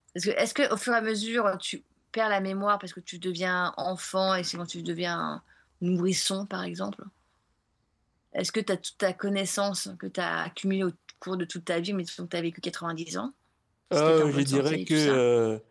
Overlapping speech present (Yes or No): Yes